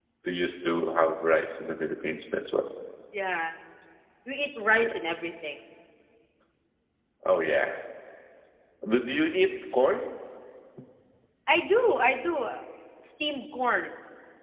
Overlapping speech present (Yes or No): No